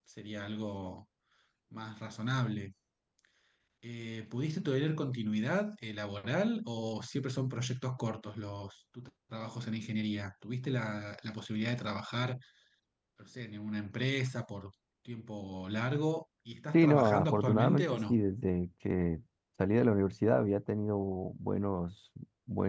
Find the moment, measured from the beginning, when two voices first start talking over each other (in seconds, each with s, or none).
16.7 s